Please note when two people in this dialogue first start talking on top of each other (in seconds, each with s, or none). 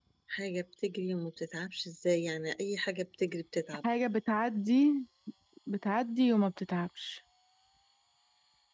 none